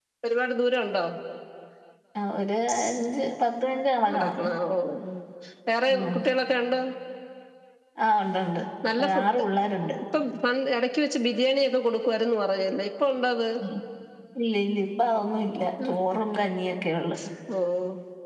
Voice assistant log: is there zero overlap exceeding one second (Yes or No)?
Yes